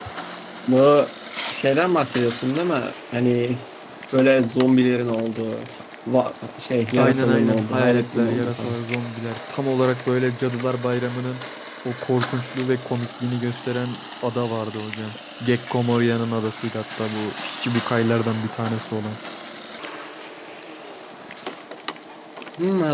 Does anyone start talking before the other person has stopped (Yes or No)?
Yes